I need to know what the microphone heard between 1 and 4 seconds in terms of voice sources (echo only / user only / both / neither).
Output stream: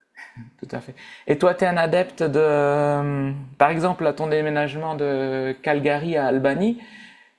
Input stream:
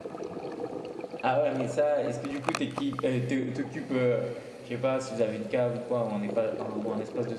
user only